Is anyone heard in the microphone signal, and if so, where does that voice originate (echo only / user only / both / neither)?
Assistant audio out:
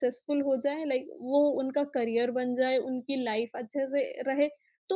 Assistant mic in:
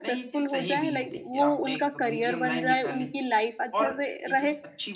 both